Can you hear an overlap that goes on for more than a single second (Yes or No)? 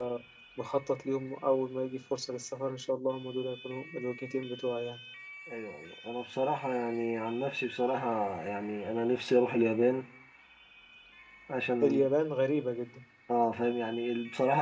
No